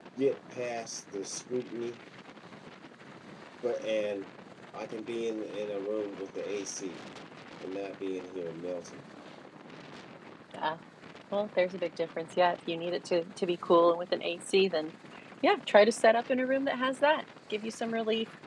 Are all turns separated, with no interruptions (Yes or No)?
Yes